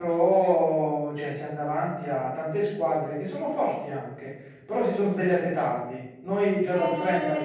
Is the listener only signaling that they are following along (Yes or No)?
No